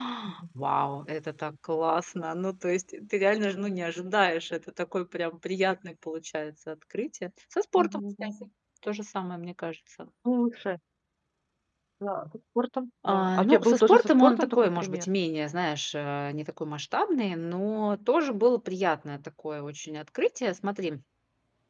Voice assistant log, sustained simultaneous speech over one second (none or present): present